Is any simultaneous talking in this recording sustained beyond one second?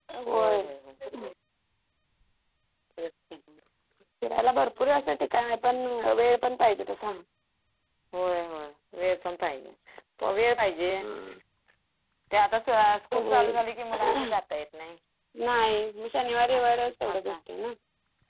No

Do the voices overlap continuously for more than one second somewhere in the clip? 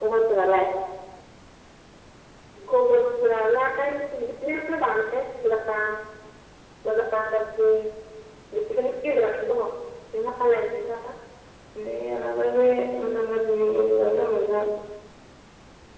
No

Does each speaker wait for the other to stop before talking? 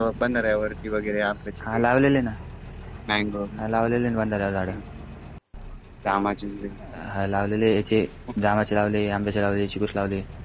Yes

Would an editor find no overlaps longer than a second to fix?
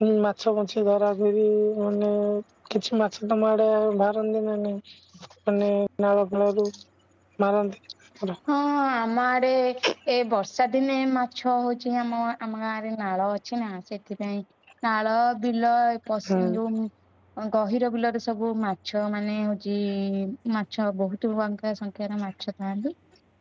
Yes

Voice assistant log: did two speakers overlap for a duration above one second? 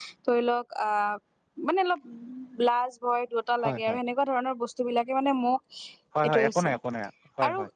No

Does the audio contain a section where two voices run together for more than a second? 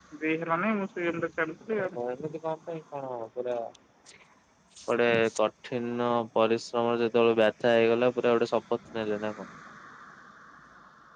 No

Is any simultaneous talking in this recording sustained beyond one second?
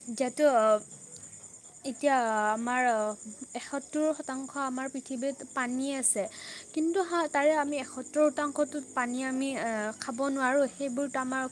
No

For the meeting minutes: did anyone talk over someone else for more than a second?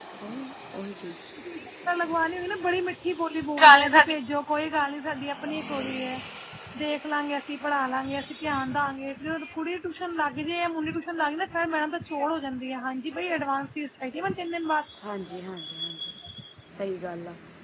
No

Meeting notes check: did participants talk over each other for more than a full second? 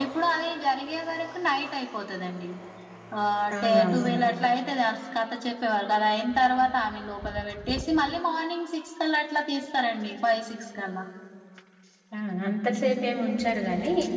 No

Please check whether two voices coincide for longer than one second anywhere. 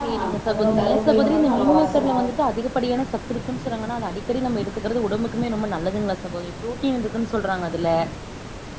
Yes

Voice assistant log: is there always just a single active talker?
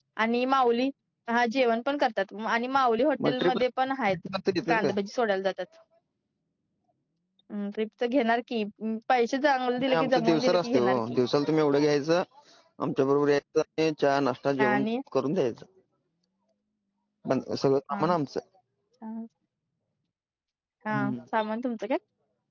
No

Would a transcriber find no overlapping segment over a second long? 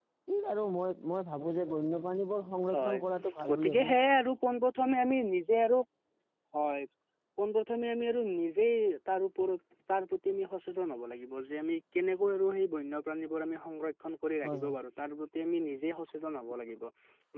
Yes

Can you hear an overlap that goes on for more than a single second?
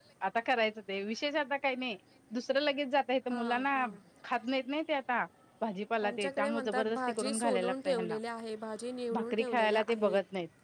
Yes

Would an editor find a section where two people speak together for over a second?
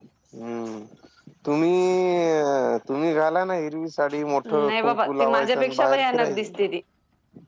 Yes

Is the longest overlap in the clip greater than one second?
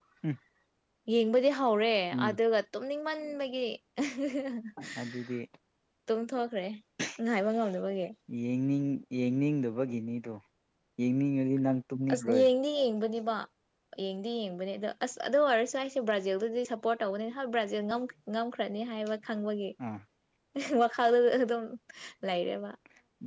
No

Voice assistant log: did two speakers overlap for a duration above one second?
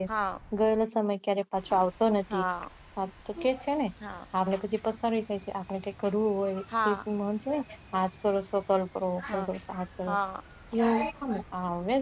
No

